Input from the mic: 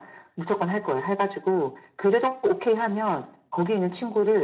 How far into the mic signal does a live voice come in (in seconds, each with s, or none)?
none